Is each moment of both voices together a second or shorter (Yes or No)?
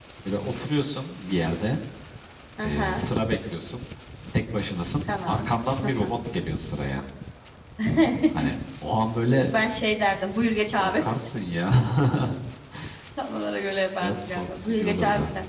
No